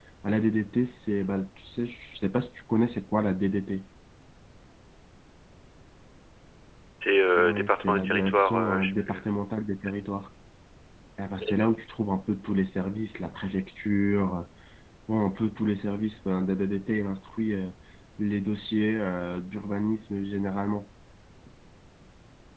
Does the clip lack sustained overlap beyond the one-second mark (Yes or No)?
No